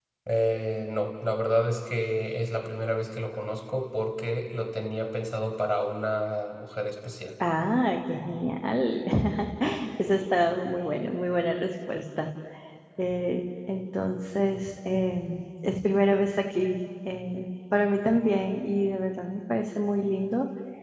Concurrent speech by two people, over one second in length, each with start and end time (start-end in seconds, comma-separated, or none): none